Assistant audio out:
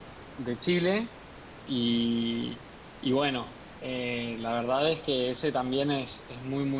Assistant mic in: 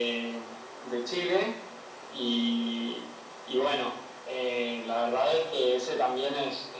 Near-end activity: none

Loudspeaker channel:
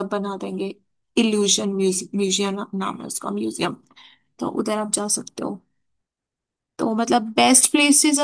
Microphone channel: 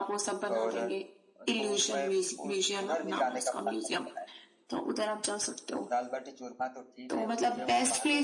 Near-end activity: present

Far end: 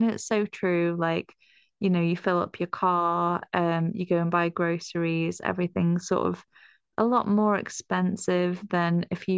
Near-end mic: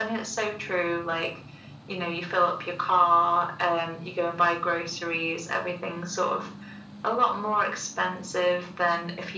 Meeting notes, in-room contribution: none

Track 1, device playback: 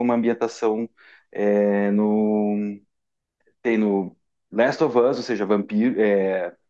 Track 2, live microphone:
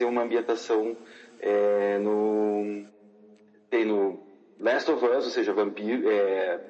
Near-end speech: none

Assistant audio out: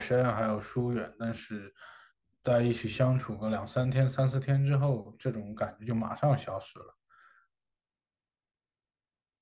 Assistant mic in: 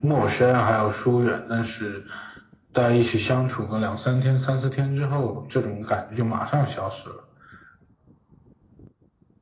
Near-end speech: none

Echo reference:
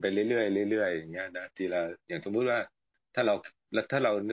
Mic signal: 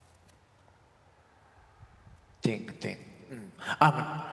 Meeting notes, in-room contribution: present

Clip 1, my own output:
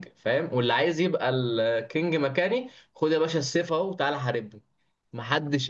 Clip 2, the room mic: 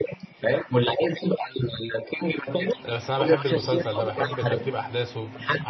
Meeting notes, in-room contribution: present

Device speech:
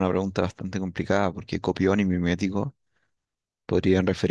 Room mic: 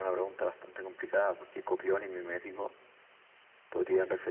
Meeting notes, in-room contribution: none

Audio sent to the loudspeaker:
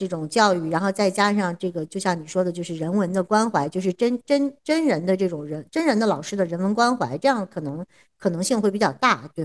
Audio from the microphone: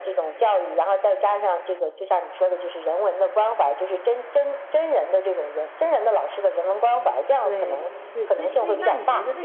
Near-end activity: present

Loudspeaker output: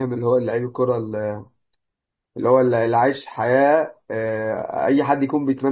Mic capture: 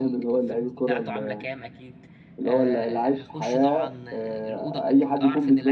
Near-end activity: present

